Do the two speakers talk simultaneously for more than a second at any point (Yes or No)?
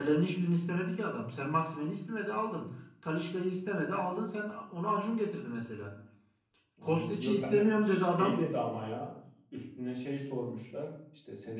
Yes